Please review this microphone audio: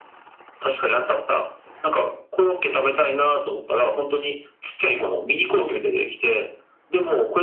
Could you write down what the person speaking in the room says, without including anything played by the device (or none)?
none